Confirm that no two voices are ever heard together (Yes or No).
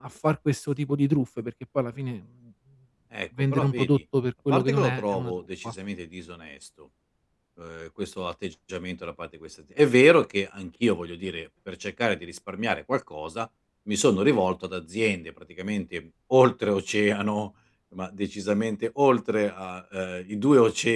No